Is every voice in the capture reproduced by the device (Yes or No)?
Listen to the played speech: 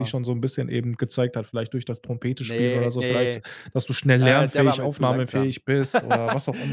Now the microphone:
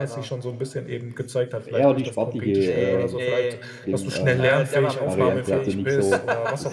No